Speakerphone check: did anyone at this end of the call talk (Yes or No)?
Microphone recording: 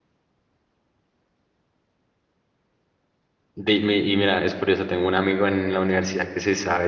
Yes